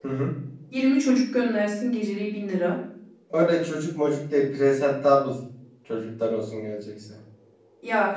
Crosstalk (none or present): none